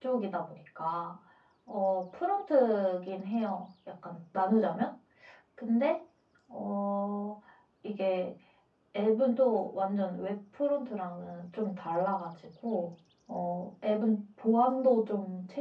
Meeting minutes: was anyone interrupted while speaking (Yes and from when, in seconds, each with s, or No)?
No